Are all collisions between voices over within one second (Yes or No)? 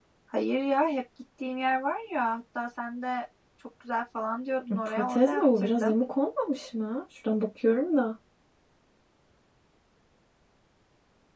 No